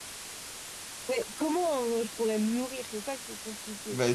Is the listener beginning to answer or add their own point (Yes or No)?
Yes